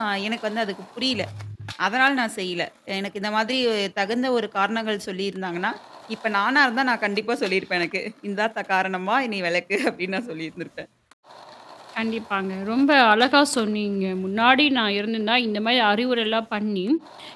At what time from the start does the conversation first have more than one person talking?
none

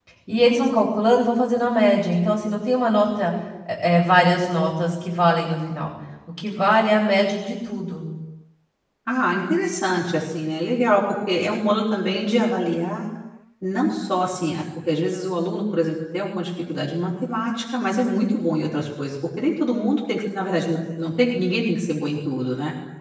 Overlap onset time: none

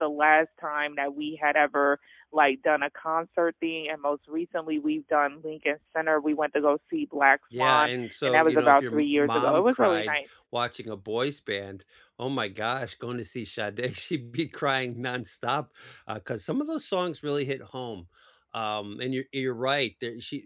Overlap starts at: 7.5 s

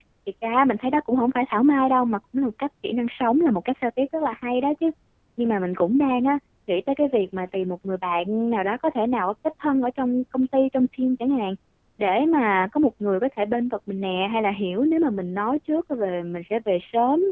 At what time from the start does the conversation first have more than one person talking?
none

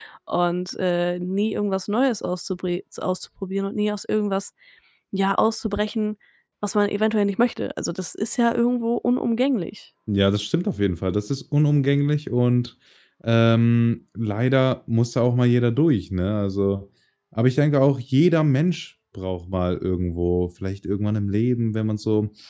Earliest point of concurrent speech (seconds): none

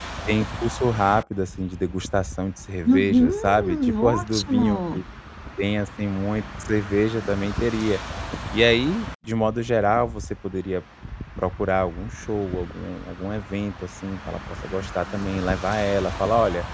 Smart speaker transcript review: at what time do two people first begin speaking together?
2.9 s

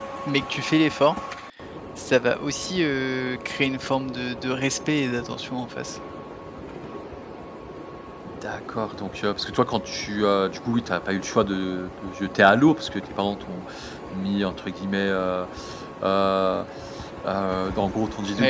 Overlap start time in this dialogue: none

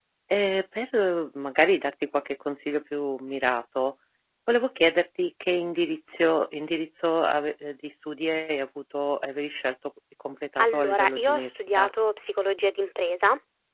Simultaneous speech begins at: 10.6 s

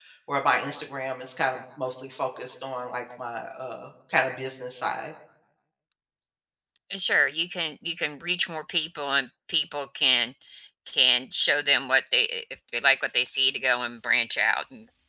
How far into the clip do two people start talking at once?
none

